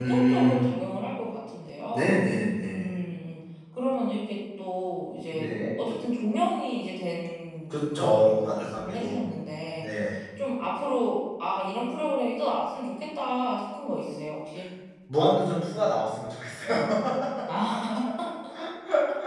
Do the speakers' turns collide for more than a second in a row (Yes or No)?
Yes